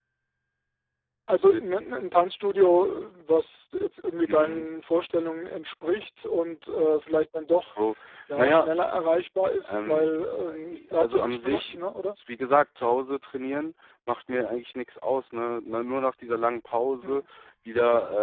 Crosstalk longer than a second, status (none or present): present